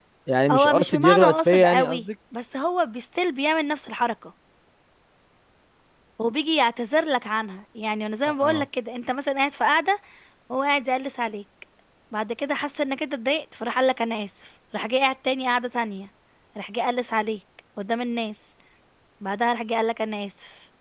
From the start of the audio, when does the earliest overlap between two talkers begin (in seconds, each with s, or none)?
0.5 s